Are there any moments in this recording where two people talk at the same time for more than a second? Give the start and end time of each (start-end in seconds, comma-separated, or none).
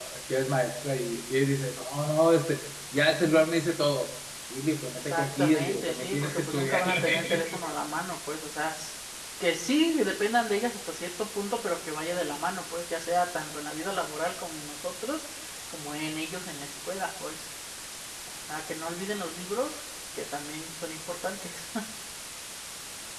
4.9-7.7